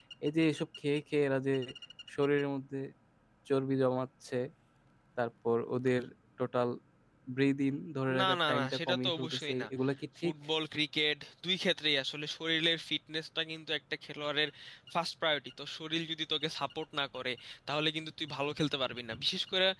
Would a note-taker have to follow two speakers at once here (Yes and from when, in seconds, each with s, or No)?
Yes, from 8.2 s